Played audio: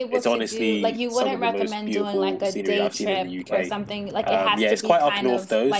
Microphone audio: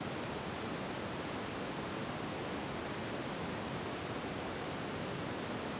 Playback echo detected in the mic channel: No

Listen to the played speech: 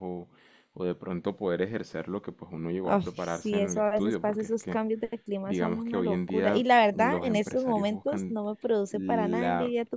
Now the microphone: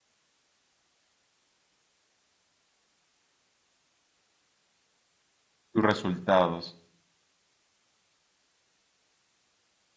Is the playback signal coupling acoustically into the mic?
No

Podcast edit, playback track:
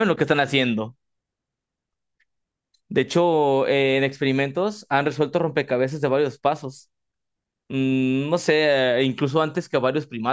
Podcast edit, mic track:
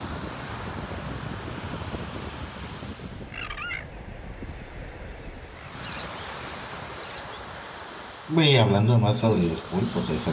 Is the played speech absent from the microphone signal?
Yes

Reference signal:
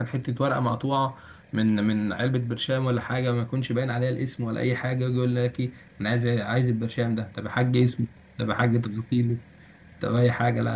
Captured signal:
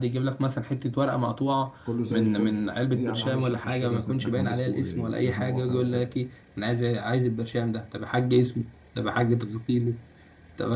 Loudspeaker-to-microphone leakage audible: Yes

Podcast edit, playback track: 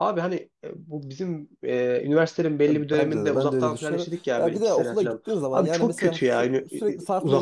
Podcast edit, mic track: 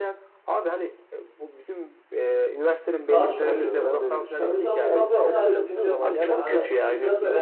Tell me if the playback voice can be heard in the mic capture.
Yes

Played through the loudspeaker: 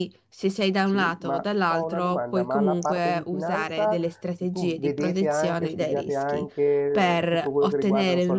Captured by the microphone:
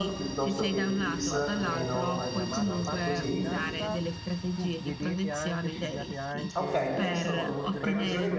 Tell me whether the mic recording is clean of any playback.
No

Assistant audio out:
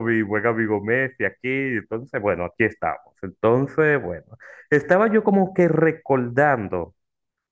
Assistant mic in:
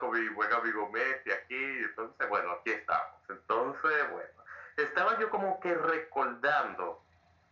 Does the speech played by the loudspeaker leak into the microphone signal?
Yes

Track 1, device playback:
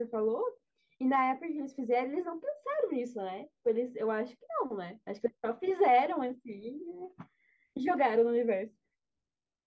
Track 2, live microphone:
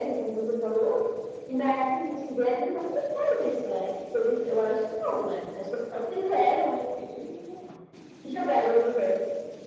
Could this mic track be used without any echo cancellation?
No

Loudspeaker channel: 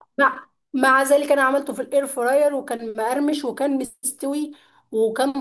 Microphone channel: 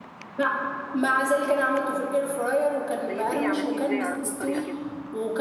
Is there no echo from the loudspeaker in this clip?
No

